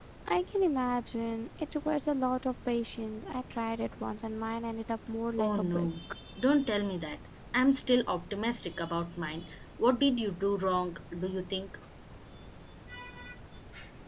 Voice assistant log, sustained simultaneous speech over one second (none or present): none